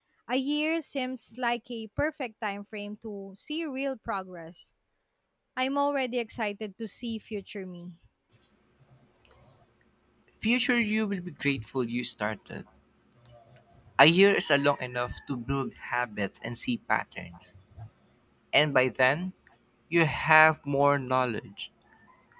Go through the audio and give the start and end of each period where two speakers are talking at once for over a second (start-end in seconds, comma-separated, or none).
none